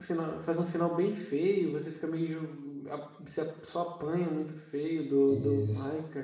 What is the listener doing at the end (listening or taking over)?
taking over